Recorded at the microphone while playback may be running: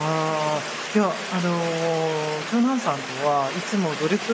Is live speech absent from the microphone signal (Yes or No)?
No